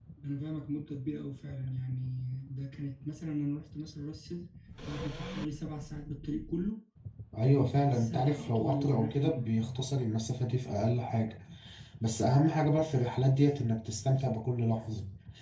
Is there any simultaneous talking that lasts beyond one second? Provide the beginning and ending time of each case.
7.4-9.8

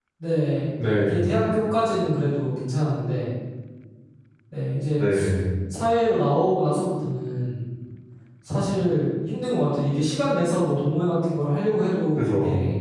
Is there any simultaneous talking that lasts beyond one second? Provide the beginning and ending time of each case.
none

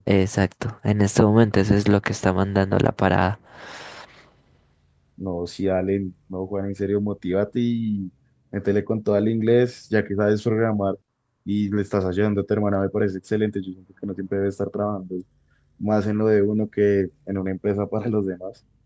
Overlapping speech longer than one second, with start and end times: none

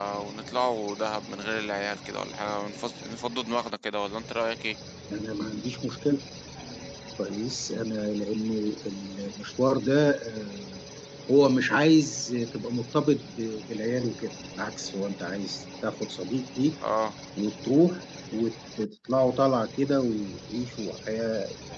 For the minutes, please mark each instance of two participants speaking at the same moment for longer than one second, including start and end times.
none

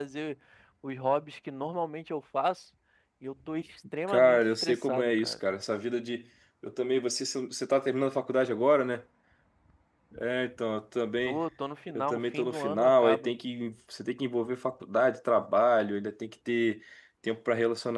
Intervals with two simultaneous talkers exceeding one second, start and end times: 4.1-5.3, 11.9-13.3

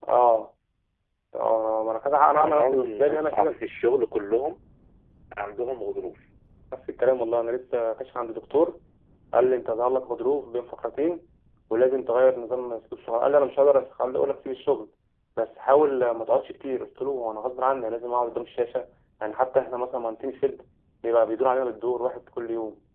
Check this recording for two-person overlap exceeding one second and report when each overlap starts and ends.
2.3-3.6

